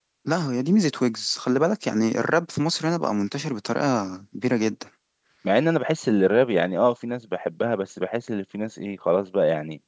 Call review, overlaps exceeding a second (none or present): none